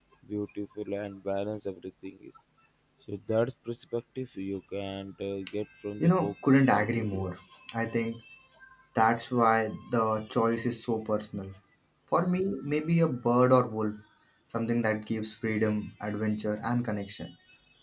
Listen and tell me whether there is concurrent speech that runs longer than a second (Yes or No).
Yes